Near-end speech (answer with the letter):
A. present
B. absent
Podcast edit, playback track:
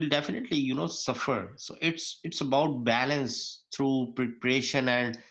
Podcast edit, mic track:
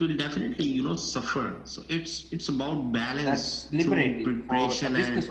A